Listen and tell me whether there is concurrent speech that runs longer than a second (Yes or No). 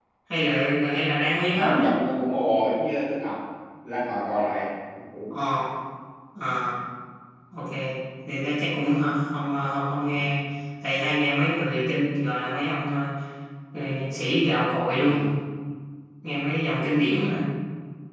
No